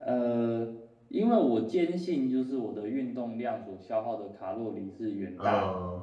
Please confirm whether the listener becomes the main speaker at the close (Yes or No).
No